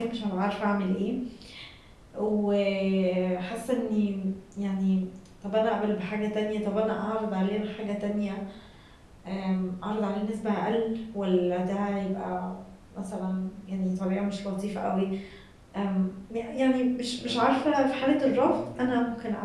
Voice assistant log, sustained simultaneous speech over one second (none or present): present